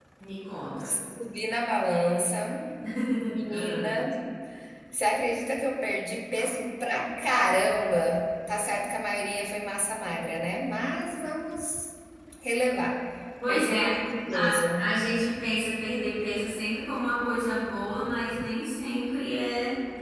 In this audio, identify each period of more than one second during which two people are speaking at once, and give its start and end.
none

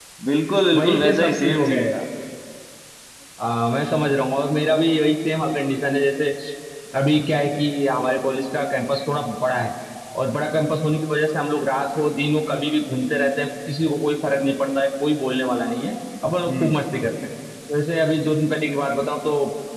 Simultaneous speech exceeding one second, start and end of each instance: 0.7-1.9

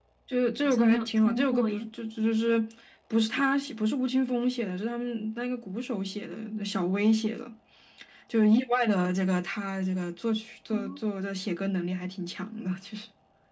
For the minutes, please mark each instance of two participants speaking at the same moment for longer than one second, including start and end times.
0.6-1.9

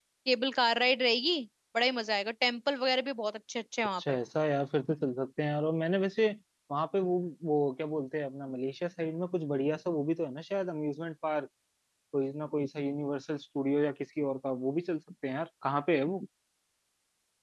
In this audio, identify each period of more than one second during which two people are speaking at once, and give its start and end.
none

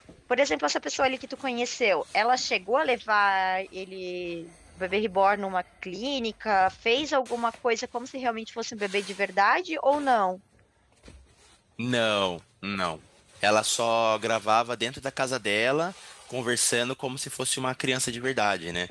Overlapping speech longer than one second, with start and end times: none

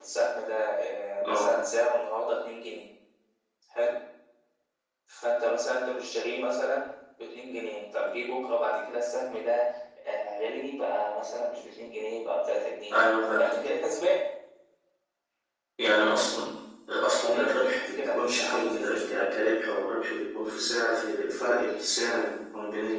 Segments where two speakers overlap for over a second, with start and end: 17.2-19.2

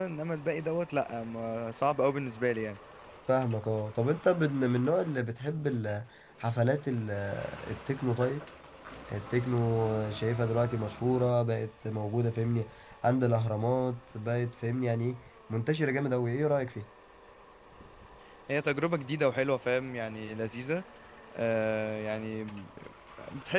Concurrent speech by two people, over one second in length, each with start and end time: none

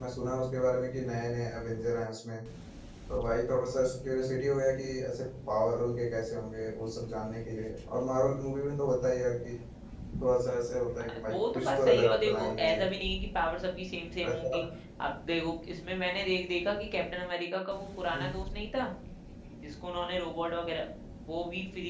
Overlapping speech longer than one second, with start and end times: 11.3-12.8

